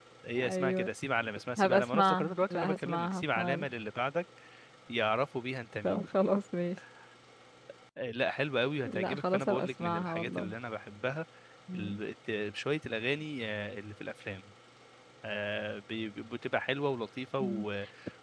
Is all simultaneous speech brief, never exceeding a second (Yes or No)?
No